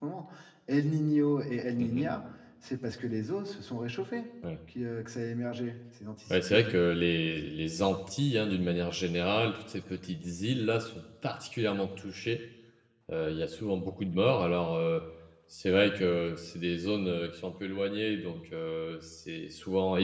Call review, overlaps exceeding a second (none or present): none